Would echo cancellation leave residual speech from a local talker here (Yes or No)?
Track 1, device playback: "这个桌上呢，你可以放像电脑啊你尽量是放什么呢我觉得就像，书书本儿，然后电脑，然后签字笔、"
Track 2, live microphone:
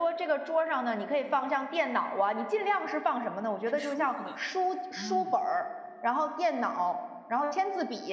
Yes